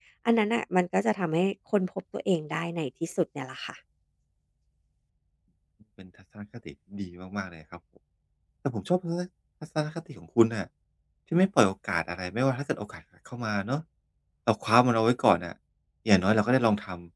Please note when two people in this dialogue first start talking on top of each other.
none

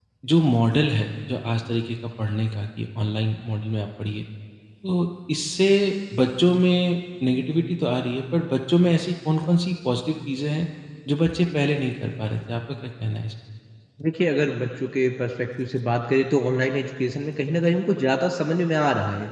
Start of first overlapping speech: none

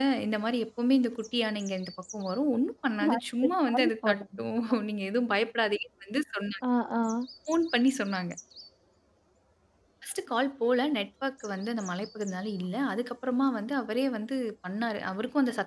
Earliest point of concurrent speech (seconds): 3.0 s

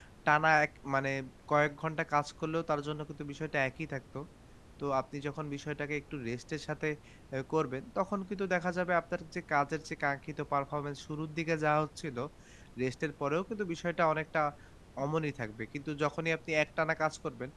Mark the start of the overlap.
none

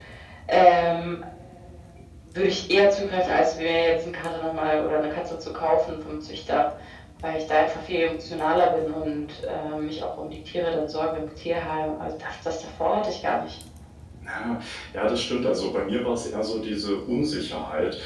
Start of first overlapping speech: none

